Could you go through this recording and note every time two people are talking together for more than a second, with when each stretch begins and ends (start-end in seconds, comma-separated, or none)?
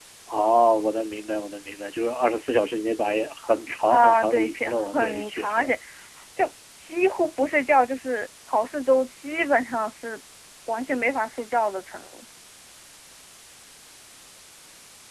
3.9-5.7